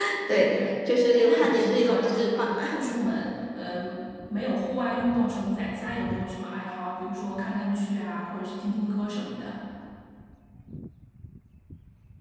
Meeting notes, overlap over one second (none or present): present